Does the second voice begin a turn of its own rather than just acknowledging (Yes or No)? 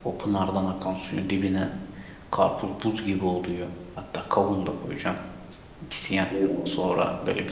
No